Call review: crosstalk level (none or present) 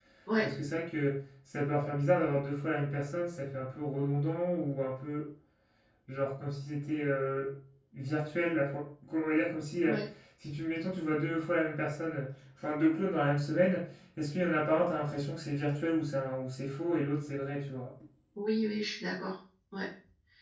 none